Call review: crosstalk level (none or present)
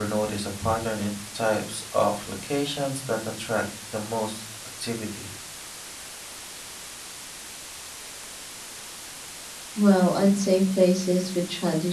none